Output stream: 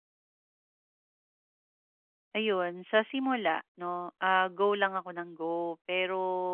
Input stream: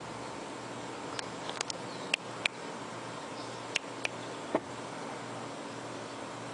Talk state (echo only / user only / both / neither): neither